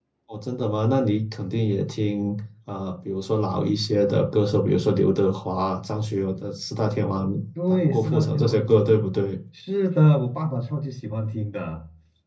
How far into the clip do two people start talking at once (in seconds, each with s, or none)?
7.7 s